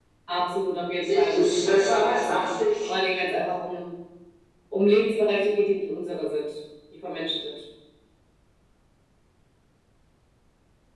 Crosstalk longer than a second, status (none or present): present